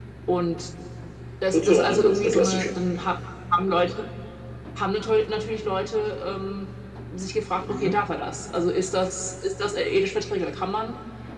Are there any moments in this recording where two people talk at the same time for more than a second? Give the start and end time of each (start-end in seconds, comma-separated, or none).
1.5-2.7